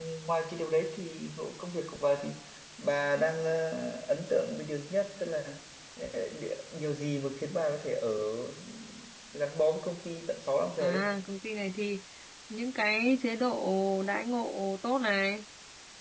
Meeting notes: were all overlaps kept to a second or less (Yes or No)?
Yes